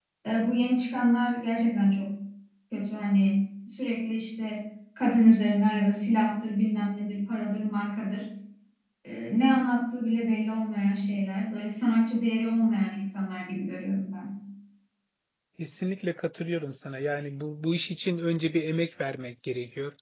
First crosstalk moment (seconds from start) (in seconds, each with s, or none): none